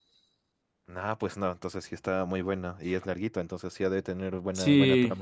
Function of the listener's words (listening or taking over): taking over